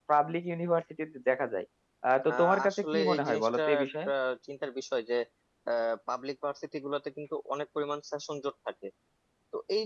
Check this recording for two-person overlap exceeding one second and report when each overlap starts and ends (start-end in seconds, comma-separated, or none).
2.3-4.1